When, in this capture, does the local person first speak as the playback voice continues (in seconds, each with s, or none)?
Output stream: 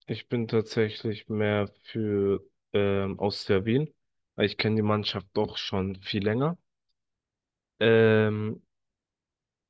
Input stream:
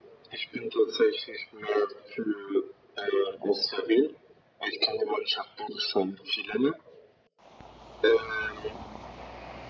none